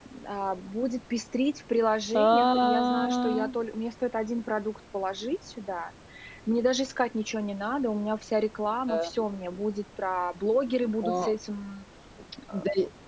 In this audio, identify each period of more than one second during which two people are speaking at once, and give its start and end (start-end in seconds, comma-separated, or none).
2.1-3.5